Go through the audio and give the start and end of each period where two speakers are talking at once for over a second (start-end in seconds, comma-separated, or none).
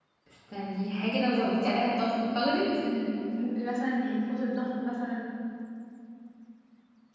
none